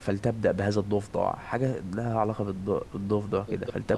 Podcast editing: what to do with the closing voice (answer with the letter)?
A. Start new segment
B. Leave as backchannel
A